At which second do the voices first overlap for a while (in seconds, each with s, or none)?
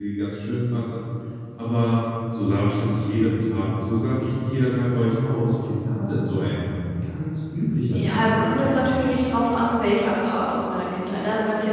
7.9 s